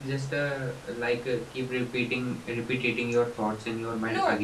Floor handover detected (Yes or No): Yes